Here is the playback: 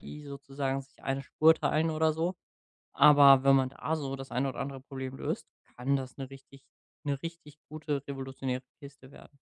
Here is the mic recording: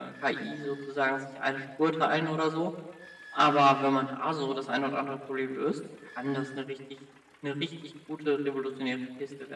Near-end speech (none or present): none